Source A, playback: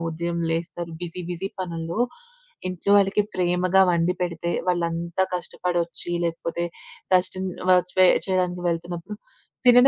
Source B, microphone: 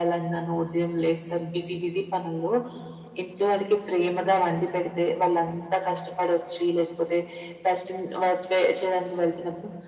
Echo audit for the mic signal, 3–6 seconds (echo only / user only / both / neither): echo only